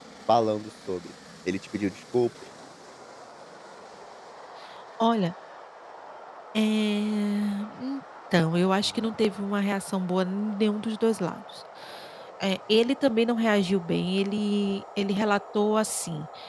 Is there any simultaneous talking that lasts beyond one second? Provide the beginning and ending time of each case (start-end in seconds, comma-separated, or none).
none